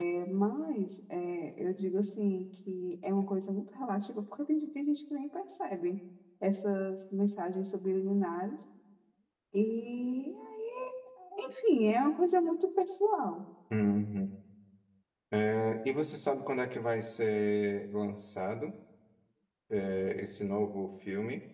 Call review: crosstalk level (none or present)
none